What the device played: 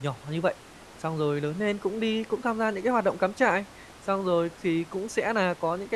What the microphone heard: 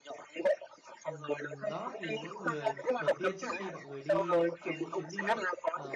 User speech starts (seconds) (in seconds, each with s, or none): 1.0 s